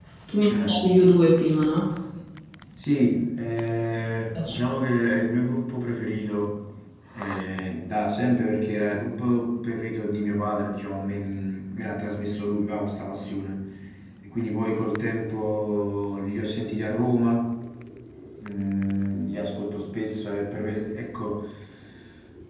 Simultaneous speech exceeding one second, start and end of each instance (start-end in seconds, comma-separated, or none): none